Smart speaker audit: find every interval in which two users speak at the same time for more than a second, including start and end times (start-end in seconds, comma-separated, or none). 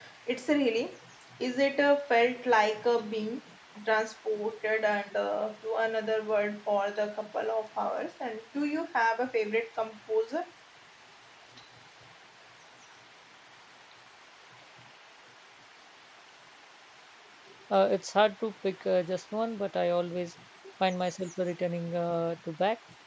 none